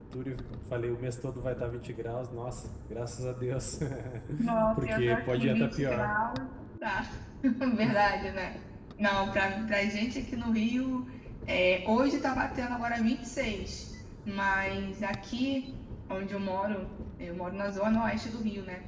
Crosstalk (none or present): present